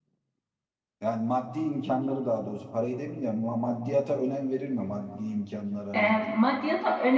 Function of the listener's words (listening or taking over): taking over